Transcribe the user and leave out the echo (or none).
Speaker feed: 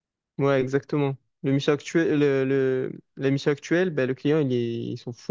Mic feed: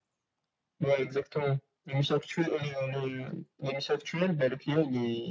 none